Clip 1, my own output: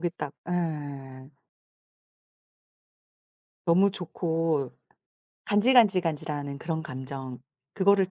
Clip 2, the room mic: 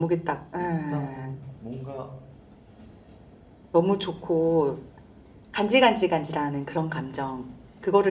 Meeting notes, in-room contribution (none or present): present